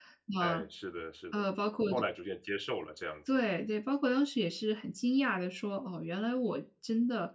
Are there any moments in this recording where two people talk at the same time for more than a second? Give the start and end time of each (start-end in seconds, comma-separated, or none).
none